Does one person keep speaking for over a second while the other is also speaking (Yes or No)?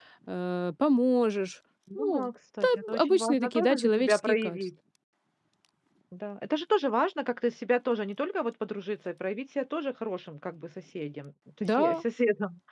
Yes